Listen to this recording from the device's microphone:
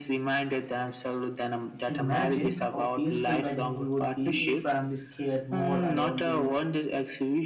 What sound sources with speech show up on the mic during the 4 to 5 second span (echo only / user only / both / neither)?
both